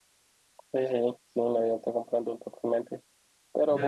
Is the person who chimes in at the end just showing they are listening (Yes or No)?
Yes